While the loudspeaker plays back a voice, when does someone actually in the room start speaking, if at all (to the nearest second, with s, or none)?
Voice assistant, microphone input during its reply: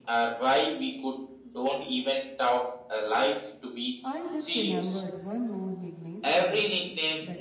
4 s